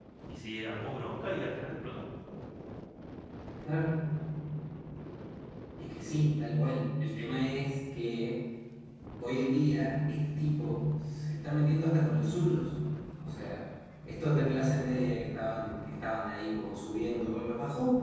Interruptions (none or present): none